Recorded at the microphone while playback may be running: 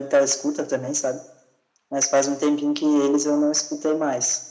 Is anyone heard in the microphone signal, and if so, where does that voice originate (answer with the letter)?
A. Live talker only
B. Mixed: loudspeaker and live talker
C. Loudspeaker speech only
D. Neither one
C